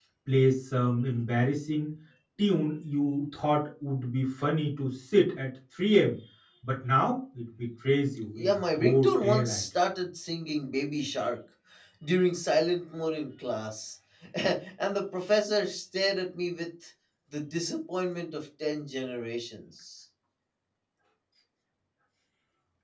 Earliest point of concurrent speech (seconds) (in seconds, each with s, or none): 8.3 s